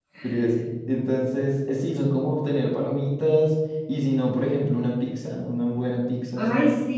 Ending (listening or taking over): taking over